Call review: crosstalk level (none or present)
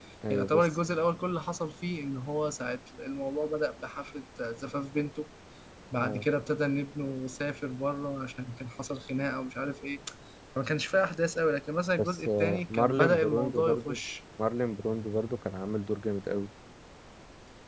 present